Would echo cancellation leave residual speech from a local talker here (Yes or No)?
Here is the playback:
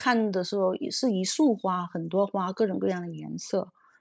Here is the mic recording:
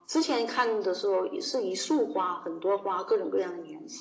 No